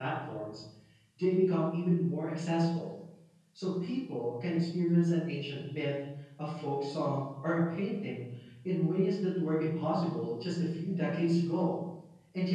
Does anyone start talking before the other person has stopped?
No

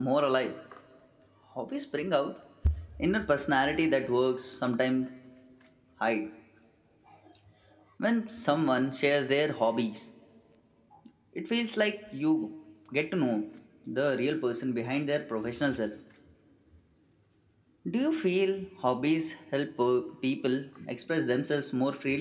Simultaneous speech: No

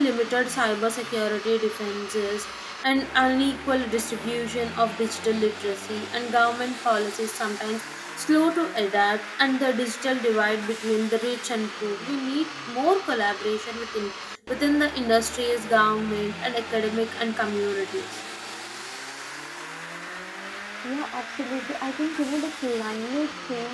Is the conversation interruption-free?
Yes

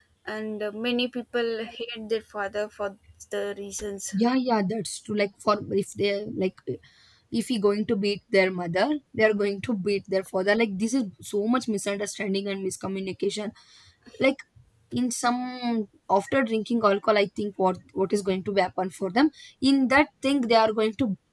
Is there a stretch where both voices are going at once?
No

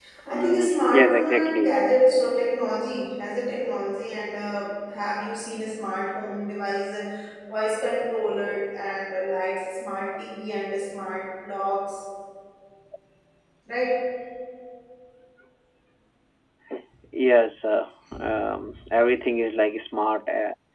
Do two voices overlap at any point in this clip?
Yes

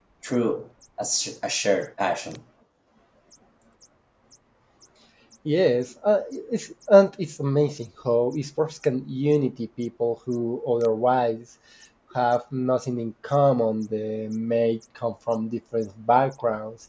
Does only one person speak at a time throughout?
Yes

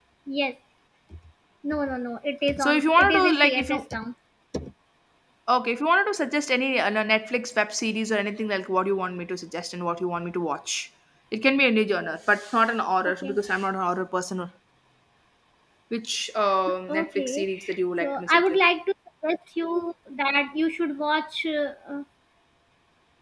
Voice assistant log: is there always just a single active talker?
No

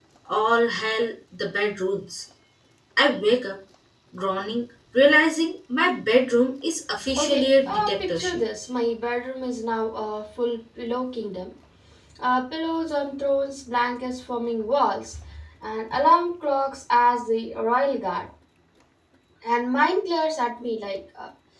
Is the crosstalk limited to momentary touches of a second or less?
No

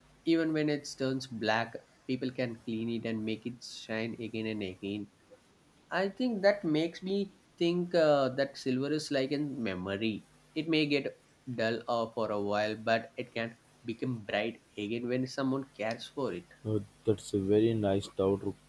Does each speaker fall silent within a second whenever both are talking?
Yes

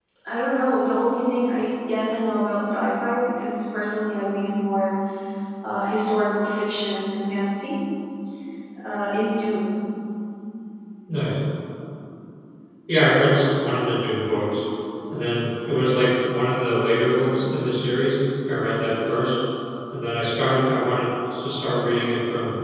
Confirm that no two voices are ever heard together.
Yes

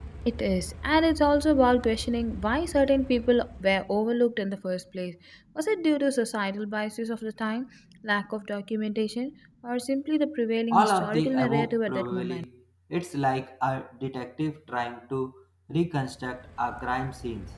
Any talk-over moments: Yes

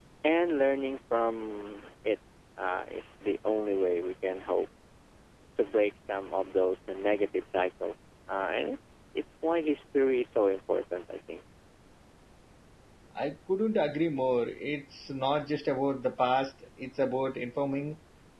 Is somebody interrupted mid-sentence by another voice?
No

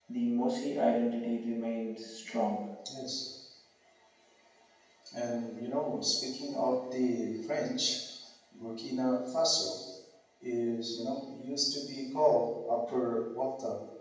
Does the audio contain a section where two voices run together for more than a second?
No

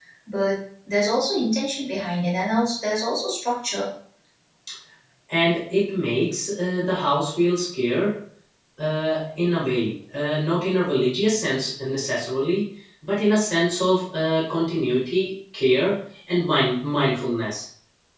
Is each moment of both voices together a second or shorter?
Yes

